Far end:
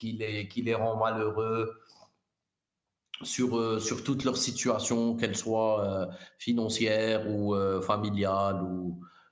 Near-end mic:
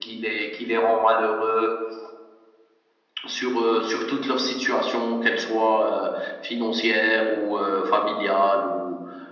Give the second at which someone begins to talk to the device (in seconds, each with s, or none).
none